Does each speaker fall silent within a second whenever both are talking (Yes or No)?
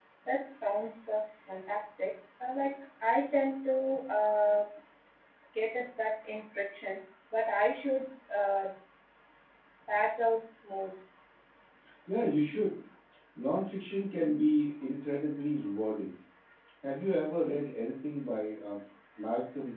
Yes